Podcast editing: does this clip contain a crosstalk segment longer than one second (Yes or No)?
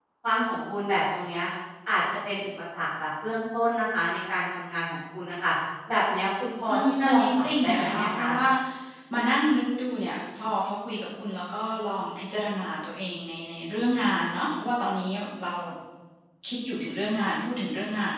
Yes